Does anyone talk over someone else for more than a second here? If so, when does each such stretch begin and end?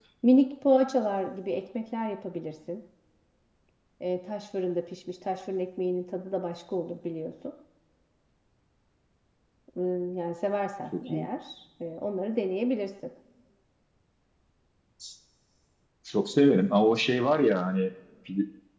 none

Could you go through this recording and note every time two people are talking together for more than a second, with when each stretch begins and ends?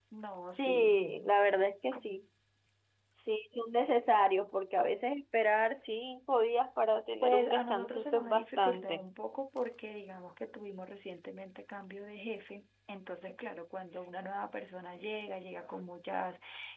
7.2-9.0

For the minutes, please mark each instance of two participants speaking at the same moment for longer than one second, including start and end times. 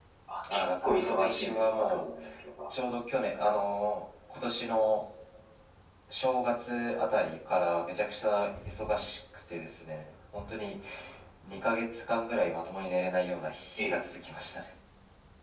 0.5-2.0

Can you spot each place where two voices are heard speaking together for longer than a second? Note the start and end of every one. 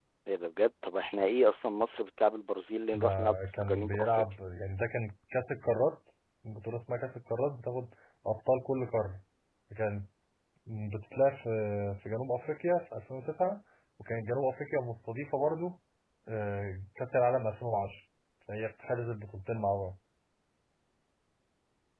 2.9-4.2

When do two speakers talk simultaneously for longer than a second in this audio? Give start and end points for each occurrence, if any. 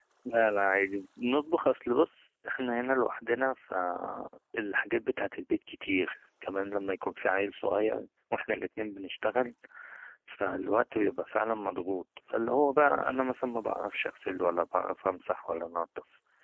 none

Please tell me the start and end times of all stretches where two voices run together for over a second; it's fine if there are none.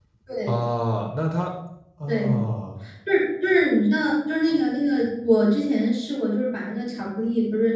none

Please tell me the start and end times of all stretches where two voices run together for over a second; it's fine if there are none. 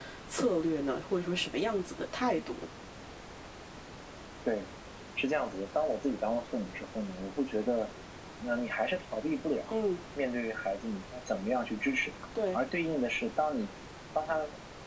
none

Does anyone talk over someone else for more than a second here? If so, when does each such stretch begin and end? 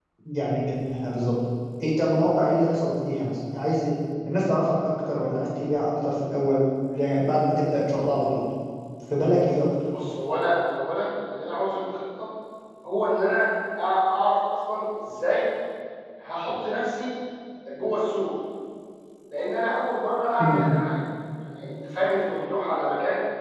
none

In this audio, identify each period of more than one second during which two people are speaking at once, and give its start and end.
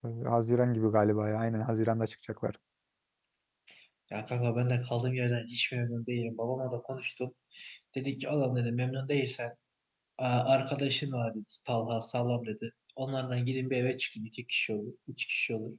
none

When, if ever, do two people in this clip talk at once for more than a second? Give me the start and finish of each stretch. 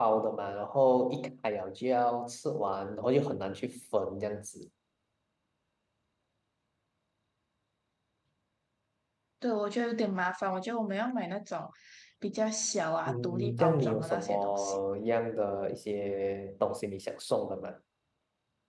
13.1-14.8

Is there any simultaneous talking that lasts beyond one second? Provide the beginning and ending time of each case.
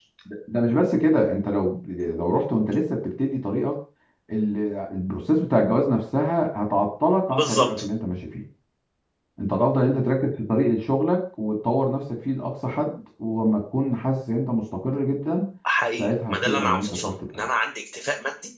16.0-17.5

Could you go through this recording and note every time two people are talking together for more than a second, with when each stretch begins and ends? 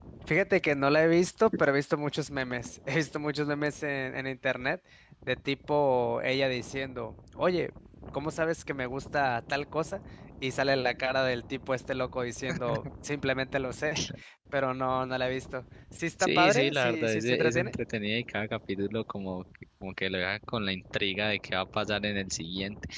16.2-17.7

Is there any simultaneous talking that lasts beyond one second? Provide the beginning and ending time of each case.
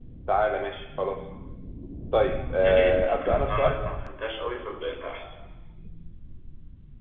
2.6-3.8

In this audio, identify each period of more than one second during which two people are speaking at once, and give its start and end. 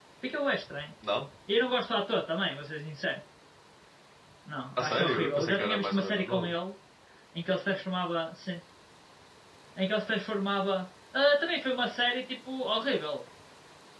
4.8-6.5

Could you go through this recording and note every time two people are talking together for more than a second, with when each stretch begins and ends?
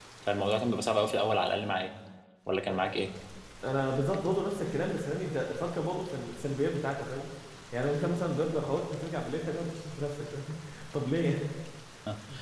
none

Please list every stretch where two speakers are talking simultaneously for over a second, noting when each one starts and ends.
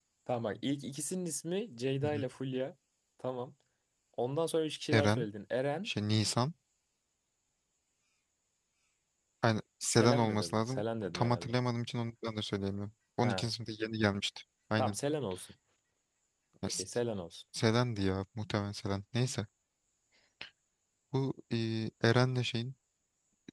9.9-11.6

